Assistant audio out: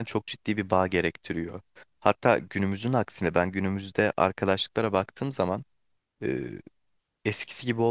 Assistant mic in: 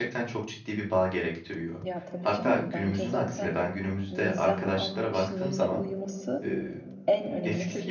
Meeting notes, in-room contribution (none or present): present